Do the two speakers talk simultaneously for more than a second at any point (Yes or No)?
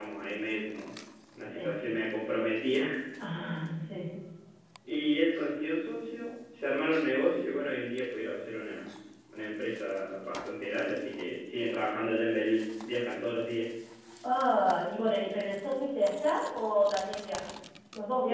No